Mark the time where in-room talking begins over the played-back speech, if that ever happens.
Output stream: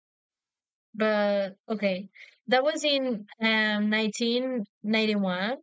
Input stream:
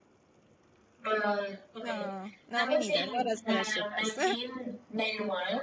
1.8 s

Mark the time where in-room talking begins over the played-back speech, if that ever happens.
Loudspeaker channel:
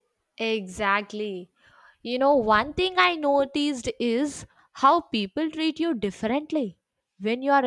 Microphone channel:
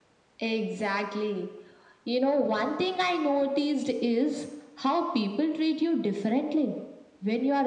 none

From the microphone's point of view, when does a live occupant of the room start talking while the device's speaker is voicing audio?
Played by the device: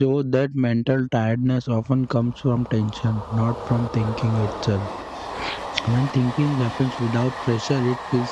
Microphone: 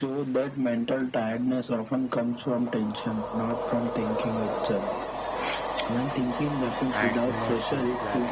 6.9 s

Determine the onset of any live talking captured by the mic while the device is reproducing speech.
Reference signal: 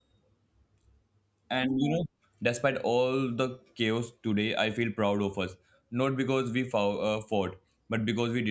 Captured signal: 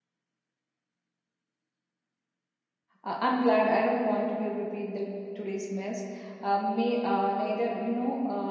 3.0 s

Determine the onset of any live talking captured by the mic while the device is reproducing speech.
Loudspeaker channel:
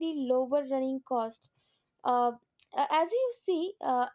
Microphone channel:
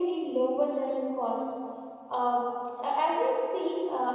none

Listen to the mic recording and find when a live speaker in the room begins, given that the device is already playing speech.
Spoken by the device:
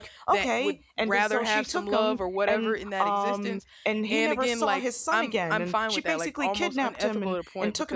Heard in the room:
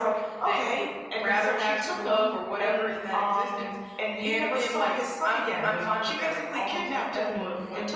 none

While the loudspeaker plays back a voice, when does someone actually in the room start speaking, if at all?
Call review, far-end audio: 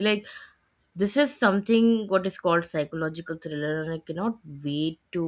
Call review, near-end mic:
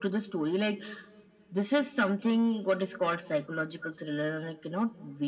none

